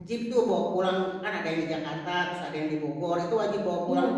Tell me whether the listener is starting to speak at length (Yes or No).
No